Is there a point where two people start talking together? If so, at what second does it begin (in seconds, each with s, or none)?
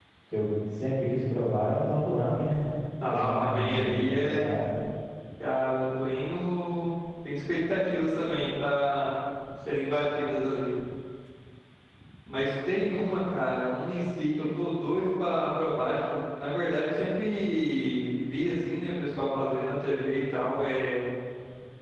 3.1 s